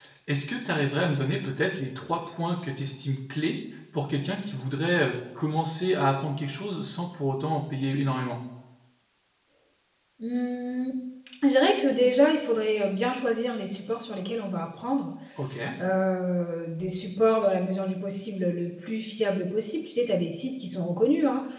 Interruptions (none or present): none